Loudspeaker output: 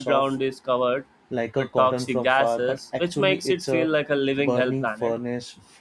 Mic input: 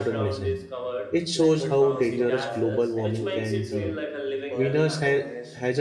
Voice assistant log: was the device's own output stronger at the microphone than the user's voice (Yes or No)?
No